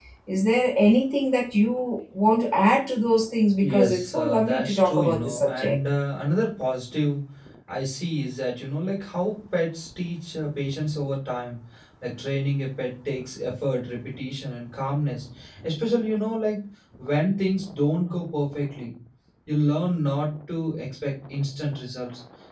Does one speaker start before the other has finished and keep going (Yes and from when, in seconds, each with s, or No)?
Yes, from 3.6 s